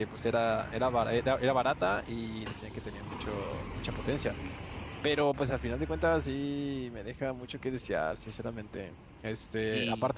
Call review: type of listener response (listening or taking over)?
listening